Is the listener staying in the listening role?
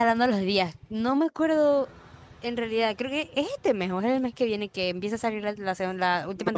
No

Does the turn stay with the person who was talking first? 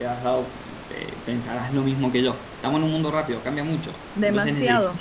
No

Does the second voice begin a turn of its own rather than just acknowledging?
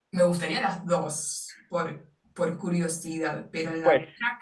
Yes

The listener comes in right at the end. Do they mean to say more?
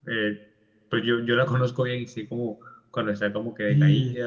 Yes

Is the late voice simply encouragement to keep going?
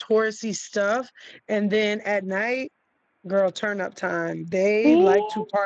Yes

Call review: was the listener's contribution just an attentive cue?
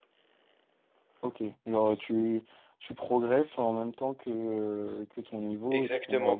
No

